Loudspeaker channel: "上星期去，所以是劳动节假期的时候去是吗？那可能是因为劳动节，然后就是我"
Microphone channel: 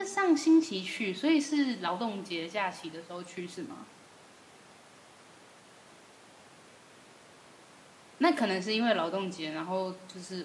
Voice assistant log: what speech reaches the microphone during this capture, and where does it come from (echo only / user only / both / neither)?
echo only